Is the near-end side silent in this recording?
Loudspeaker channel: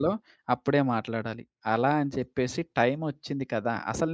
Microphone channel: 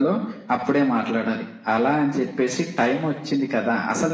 Yes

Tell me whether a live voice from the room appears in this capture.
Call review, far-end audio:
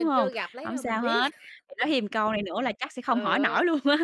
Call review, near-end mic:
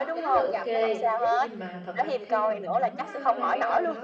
Yes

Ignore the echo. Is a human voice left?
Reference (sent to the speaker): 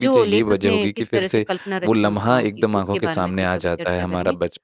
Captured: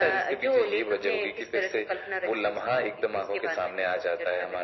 No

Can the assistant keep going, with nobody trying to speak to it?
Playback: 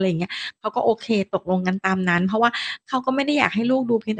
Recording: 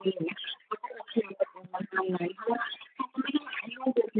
Yes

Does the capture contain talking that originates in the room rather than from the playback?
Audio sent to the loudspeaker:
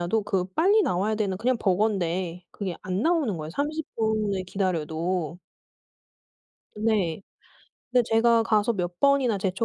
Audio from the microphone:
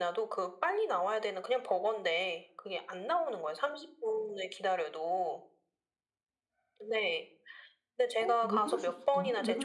Yes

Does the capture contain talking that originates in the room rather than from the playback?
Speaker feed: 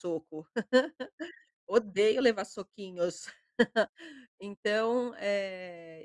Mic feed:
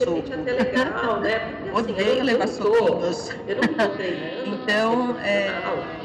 Yes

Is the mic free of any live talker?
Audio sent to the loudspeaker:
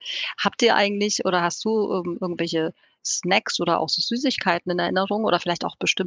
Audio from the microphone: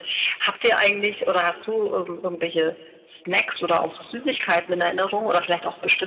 Yes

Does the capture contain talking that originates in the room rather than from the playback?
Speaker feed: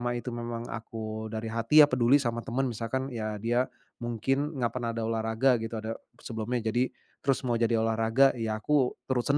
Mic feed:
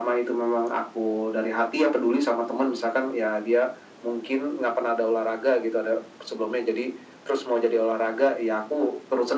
No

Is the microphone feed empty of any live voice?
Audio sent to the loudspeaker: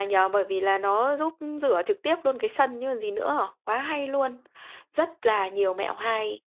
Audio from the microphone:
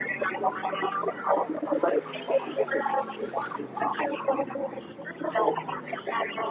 Yes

